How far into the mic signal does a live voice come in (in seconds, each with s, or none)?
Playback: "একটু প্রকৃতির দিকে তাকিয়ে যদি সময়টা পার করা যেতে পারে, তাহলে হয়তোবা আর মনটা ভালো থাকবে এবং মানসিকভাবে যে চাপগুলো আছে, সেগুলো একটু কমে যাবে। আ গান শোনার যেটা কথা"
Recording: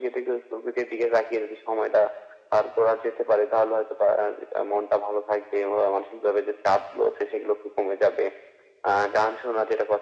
none